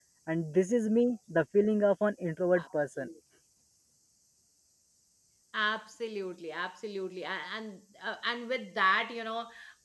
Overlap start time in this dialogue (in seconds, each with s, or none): none